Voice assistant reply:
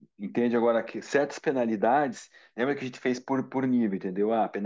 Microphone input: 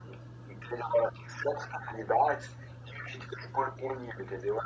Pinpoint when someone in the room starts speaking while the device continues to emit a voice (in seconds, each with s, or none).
none